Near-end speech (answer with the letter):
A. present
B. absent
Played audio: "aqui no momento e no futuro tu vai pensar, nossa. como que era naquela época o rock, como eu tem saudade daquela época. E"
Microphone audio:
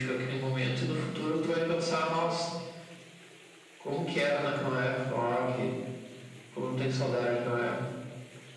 A